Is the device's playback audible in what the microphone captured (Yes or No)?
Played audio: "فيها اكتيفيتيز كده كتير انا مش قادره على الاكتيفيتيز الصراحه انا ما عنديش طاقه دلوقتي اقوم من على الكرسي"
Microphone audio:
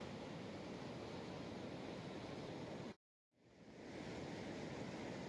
No